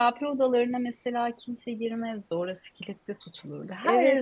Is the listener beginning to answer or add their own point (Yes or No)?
Yes